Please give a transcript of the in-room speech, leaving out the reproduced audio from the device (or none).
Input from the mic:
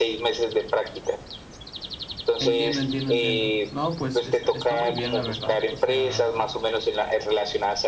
Entiendo, entiendo, entiendo. No, pues está, está muy bien, la verdad. O sea,